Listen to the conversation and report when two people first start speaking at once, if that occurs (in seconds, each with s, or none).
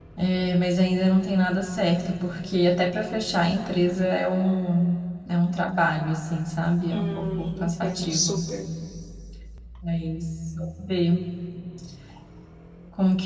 6.9 s